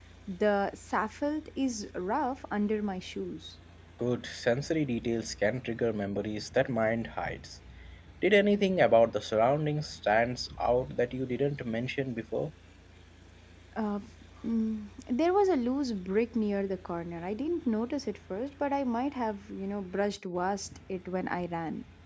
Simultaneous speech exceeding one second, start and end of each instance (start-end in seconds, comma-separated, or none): none